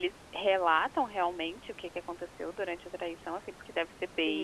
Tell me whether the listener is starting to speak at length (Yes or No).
Yes